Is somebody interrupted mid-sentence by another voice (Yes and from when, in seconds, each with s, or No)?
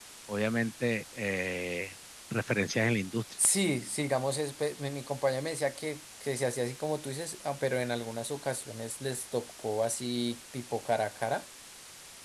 No